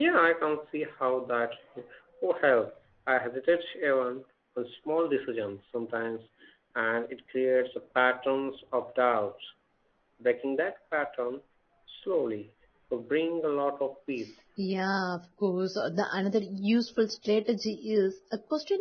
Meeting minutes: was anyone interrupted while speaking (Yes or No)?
No